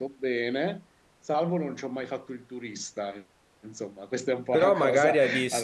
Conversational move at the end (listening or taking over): taking over